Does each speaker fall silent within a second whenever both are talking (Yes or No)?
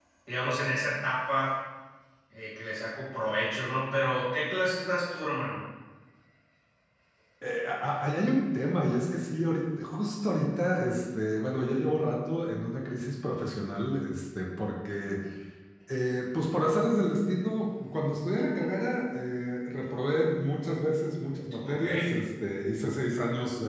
Yes